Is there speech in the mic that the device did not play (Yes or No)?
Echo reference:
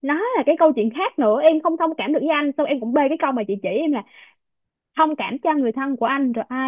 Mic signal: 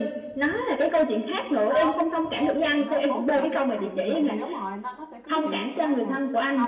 Yes